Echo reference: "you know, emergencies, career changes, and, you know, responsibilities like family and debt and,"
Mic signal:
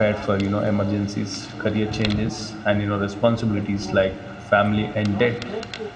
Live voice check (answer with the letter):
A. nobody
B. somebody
B